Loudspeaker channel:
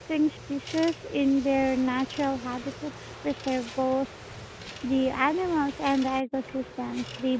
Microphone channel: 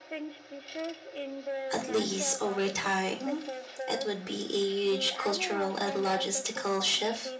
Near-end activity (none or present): present